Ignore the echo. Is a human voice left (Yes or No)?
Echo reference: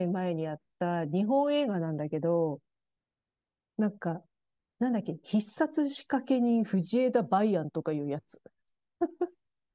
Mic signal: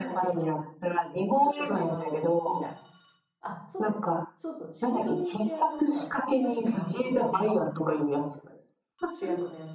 Yes